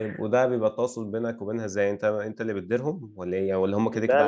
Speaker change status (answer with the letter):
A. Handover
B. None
A